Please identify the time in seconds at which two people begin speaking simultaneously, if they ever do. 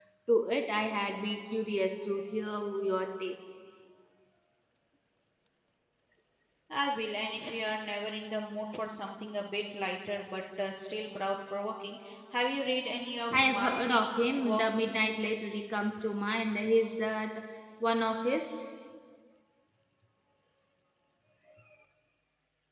13.3 s

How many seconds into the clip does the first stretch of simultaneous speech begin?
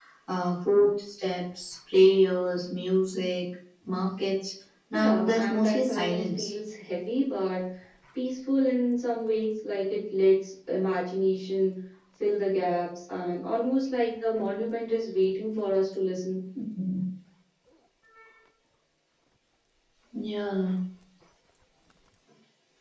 4.9 s

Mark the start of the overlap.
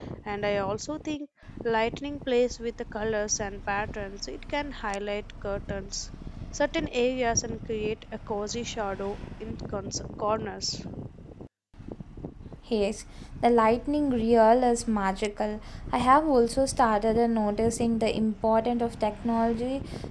none

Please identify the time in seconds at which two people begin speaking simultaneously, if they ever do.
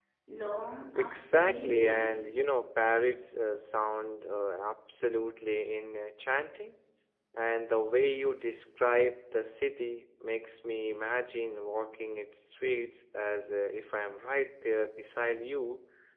1.0 s

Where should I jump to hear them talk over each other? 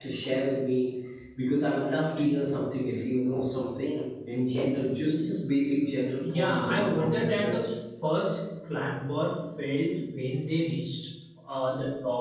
6.2 s

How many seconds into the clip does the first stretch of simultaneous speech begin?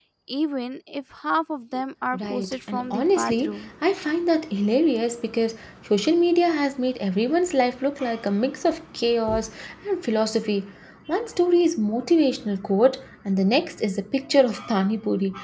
2.1 s

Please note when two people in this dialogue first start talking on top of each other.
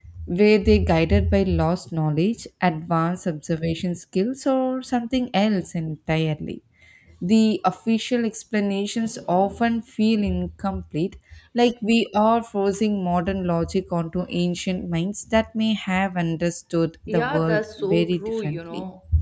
17.1 s

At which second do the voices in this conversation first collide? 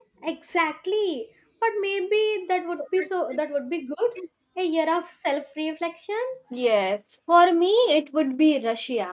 none

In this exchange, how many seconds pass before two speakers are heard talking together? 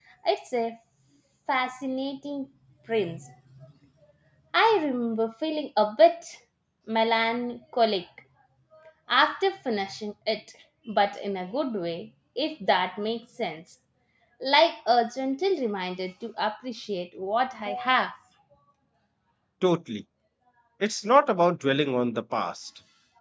none

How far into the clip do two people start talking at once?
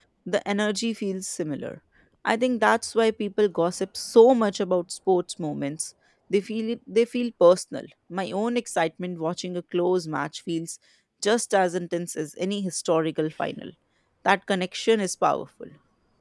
none

